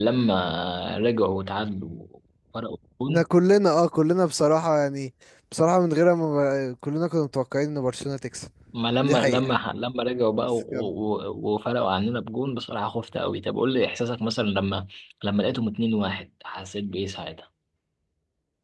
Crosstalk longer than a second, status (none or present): none